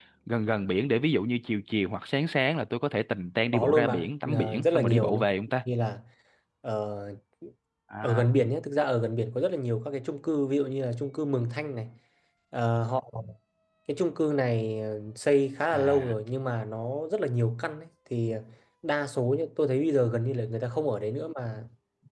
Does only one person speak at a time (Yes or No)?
No